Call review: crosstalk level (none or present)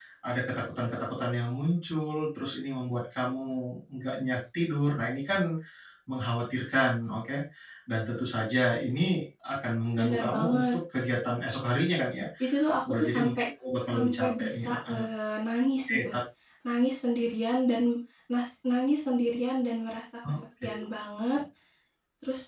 present